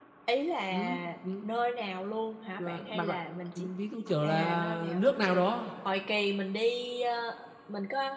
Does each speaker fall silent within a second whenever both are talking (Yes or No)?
No